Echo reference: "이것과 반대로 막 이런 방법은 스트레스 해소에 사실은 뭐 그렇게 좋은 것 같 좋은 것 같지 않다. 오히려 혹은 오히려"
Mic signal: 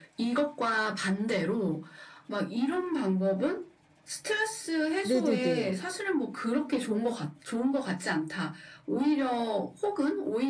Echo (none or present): present